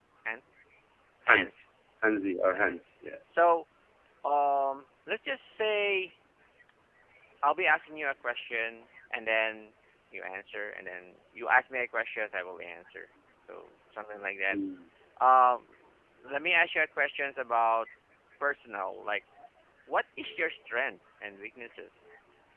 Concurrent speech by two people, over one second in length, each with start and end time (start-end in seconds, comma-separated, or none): none